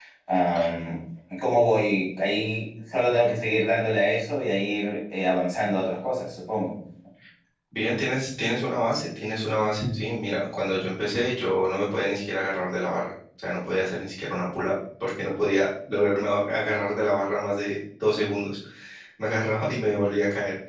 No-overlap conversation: Yes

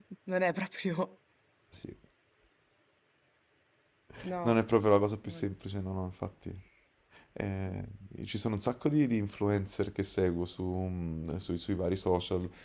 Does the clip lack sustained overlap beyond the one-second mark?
Yes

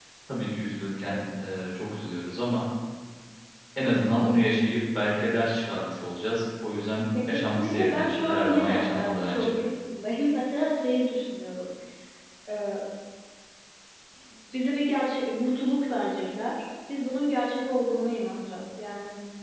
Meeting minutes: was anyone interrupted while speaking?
Yes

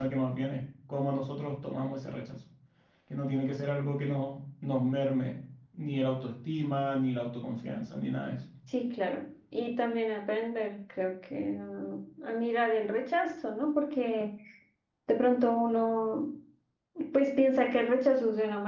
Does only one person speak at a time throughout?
Yes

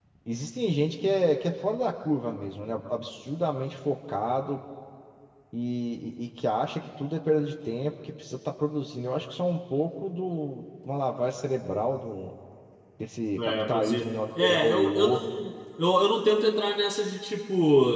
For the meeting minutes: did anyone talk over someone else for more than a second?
Yes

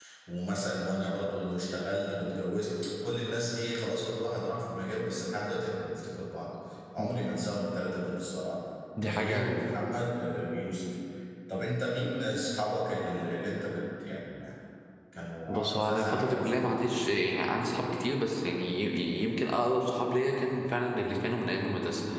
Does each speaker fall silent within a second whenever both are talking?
No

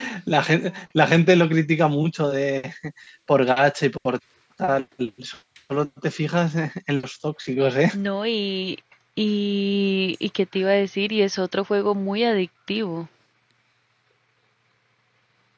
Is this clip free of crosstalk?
Yes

